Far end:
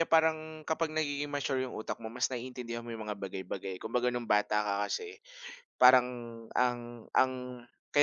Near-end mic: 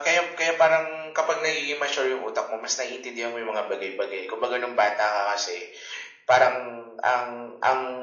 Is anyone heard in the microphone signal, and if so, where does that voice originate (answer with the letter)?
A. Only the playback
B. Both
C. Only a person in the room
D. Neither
A